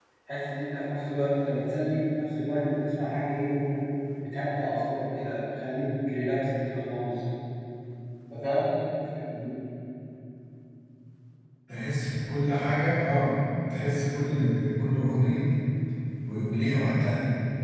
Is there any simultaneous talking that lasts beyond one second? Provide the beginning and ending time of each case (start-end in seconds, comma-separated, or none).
none